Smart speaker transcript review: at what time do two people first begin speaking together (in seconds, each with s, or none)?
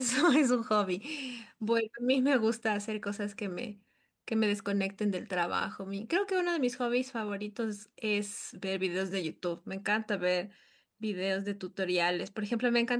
none